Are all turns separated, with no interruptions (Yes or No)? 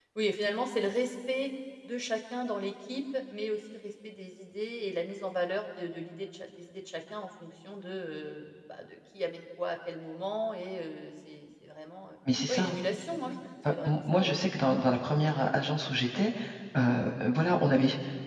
No